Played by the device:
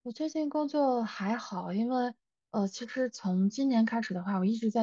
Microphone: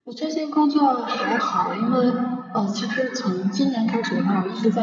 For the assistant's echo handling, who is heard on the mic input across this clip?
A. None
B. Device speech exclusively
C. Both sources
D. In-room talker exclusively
B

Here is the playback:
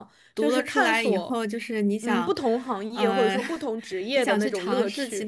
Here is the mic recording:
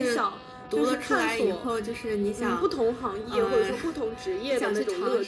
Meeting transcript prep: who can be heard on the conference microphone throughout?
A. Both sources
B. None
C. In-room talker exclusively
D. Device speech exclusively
D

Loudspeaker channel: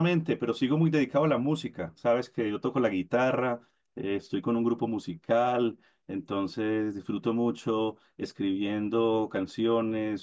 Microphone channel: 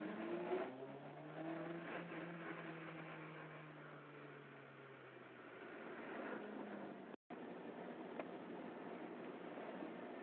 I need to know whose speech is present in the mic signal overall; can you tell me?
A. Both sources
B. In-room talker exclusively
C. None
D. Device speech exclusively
C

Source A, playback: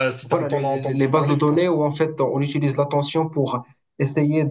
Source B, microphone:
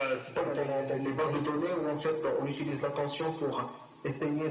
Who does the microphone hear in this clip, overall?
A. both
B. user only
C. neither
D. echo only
D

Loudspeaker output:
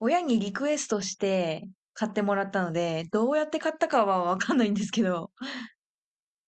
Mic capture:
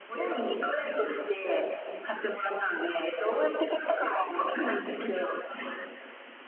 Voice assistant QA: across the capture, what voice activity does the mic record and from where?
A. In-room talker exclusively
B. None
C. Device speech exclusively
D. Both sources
C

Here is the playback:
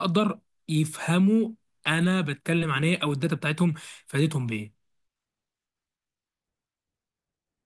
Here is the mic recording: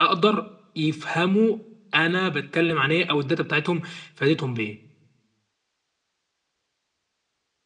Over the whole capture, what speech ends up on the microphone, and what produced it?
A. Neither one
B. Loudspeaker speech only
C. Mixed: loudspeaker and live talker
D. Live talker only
B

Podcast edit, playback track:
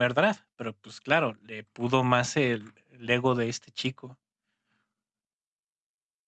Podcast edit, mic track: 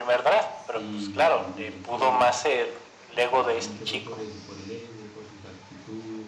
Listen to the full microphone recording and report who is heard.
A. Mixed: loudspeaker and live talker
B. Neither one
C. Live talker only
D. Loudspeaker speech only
A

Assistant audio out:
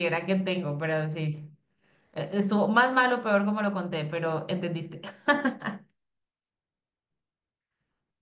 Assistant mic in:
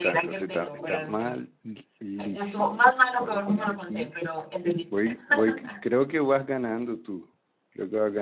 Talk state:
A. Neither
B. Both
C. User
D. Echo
B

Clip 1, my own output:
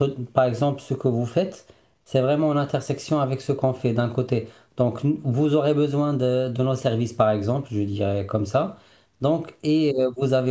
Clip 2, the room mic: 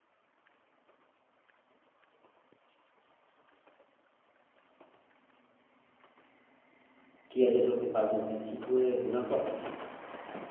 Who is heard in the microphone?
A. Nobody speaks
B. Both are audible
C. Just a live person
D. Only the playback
C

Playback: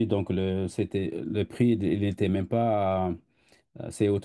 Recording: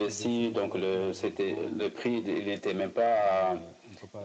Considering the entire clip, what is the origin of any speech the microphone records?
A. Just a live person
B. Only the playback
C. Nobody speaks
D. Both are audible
D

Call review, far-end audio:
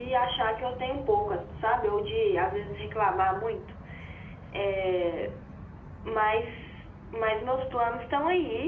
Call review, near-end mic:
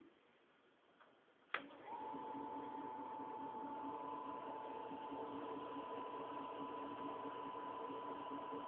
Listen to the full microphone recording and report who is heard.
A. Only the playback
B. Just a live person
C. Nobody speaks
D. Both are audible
C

